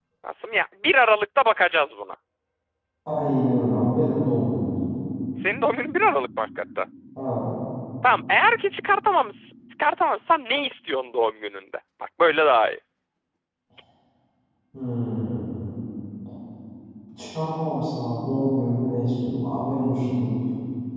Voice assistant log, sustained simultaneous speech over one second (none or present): none